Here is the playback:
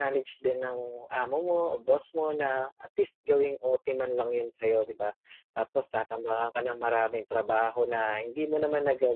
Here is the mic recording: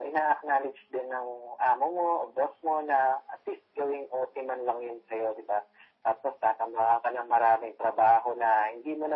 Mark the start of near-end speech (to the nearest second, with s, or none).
none